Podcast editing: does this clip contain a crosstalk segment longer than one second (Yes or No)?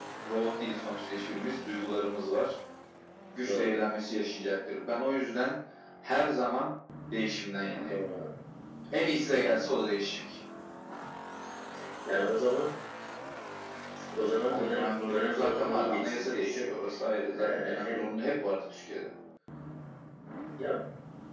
Yes